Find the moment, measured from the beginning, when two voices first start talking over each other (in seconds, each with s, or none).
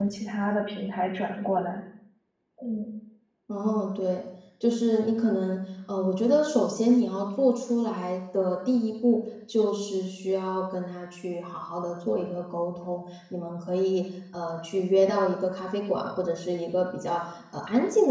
none